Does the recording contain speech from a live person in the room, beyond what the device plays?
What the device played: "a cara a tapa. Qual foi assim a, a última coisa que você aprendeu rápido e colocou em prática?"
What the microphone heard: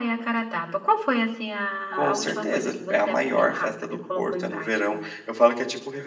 Yes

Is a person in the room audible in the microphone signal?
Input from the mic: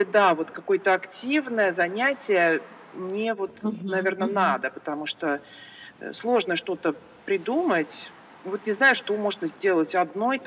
Yes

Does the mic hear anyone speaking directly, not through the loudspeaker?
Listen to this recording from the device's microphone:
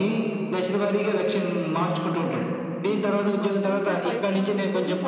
Yes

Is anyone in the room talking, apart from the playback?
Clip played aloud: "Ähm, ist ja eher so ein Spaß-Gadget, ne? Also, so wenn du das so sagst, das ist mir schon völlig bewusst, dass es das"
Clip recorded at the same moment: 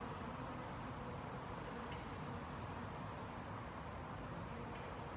No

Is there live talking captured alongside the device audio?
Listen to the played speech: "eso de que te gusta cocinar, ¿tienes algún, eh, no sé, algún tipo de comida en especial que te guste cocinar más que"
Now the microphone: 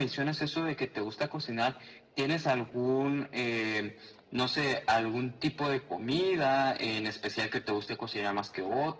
No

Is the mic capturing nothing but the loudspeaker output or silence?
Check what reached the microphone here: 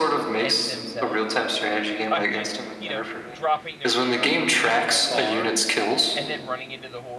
No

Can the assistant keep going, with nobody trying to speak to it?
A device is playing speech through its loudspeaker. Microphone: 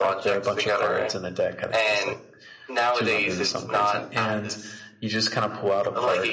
No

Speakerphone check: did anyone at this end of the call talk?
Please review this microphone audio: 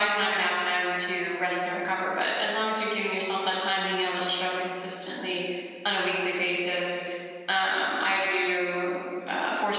No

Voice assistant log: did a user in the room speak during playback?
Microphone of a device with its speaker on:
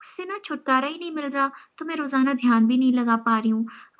No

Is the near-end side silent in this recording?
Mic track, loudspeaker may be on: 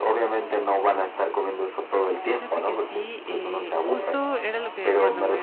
No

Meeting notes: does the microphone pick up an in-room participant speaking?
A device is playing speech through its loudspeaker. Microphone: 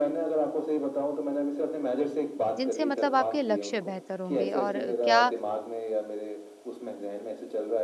Yes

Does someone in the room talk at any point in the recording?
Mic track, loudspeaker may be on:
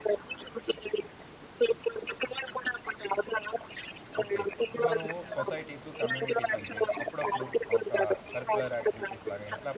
Yes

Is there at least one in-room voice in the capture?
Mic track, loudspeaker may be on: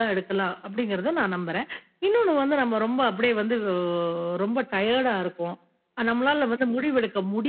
No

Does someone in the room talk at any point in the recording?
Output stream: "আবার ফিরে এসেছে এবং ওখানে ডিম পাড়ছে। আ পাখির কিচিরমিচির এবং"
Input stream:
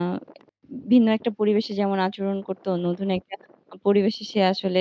Yes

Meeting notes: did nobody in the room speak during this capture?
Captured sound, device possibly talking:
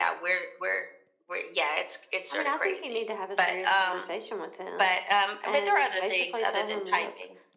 Yes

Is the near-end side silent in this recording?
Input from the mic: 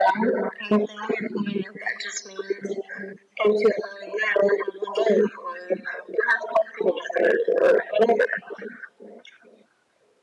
Yes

